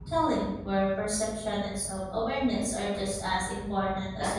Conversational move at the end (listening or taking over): taking over